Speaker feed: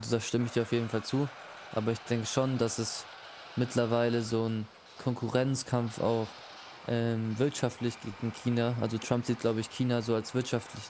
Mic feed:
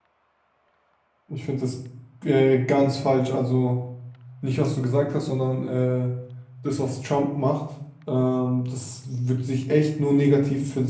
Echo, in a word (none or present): none